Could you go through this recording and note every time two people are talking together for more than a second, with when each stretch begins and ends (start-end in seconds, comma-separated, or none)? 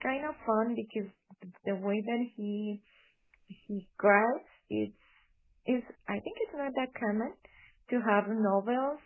none